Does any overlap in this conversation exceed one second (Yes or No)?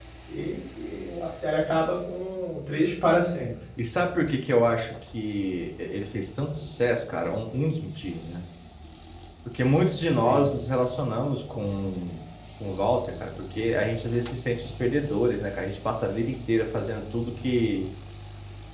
No